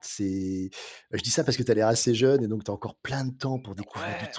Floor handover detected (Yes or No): Yes